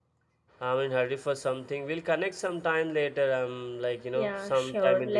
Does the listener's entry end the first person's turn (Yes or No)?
Yes